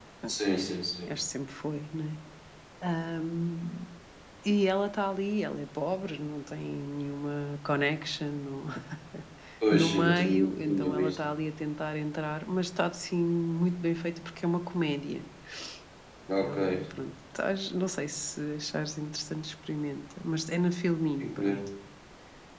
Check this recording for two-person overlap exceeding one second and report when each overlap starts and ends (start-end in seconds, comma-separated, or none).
9.7-11.2